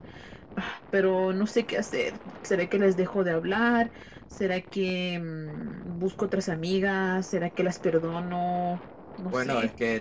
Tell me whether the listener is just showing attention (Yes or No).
No